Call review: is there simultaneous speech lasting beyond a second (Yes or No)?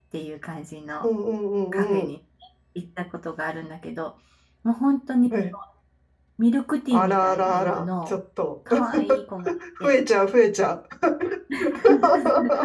Yes